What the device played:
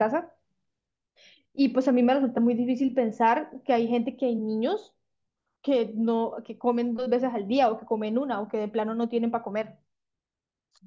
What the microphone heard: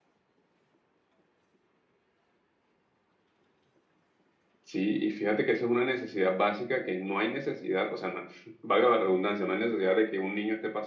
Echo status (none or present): none